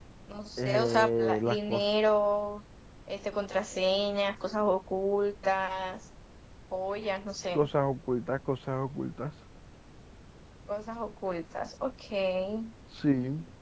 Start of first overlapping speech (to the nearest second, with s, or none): 1 s